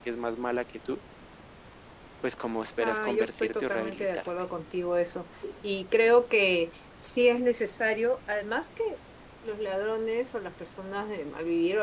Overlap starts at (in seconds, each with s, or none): 2.8 s